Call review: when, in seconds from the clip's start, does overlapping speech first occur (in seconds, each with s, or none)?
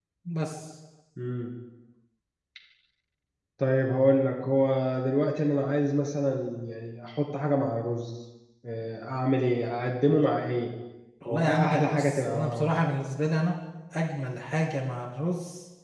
11.3 s